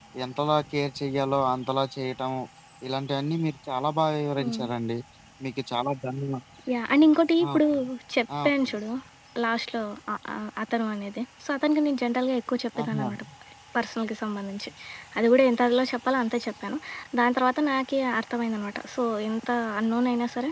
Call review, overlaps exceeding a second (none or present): none